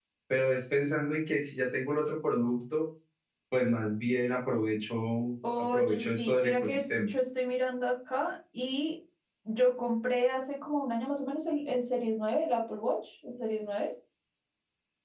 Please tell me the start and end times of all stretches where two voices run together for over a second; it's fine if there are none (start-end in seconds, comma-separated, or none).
5.6-7.1